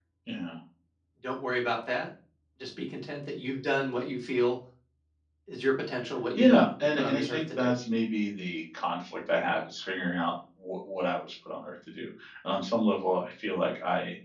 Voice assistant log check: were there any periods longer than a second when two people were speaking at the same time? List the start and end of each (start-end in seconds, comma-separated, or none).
6.4-7.8